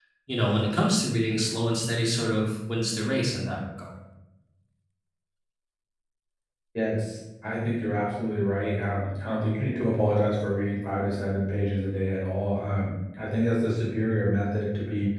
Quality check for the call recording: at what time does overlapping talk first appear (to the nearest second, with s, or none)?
none